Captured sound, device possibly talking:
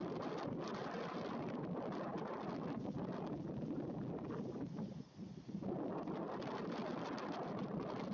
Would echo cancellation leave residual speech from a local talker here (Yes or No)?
No